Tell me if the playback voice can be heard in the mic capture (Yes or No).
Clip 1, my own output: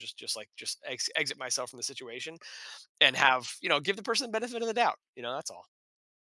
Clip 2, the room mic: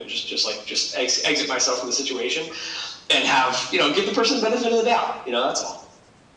Yes